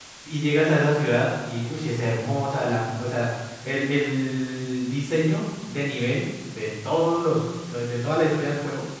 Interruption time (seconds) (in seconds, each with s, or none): none